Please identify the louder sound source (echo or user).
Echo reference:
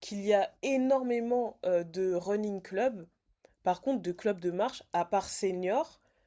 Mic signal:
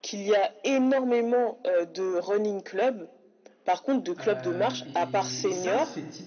echo